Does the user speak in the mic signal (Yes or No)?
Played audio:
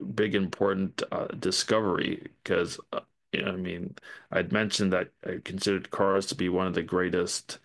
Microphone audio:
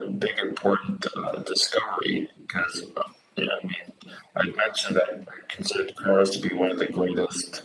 No